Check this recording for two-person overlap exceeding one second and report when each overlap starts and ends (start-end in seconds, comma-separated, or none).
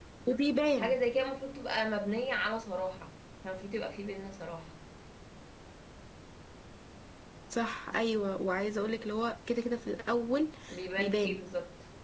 none